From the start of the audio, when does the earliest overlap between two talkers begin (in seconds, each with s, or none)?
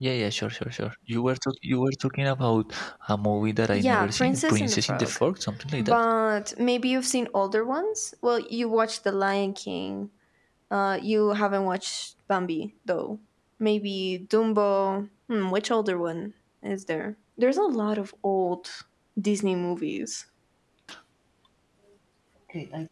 3.7 s